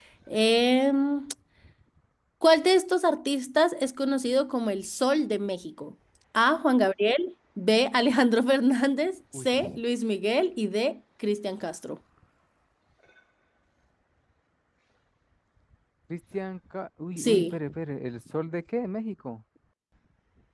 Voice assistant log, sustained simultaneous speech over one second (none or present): none